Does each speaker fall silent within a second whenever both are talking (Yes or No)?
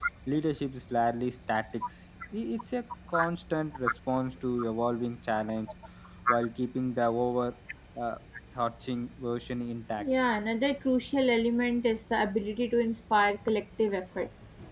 Yes